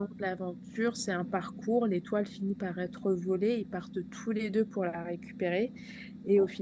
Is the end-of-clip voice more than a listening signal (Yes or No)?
No